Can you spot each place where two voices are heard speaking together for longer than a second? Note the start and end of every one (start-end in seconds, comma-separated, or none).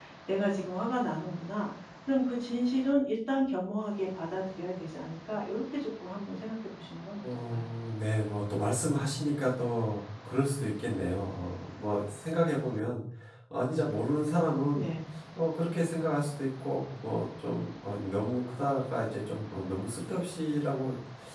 none